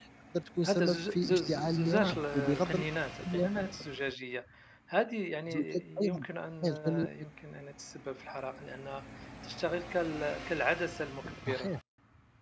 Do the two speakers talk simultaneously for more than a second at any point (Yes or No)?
Yes